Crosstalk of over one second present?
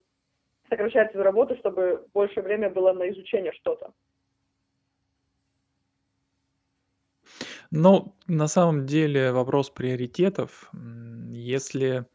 No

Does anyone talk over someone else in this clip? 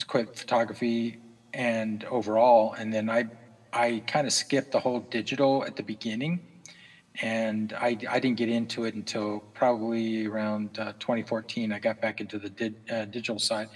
No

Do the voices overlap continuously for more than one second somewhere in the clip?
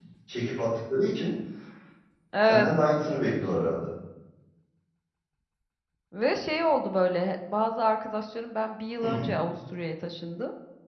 No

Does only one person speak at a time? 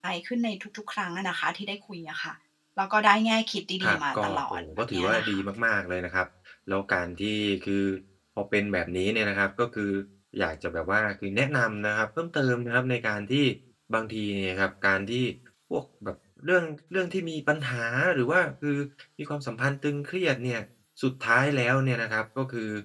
No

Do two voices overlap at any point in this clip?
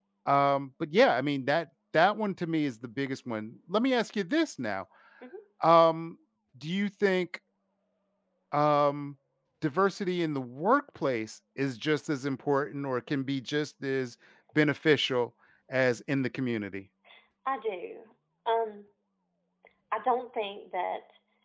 No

